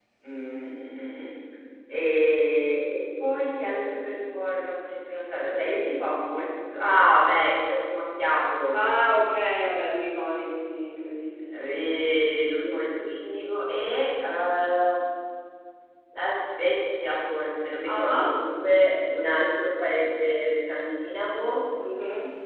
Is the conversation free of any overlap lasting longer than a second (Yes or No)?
Yes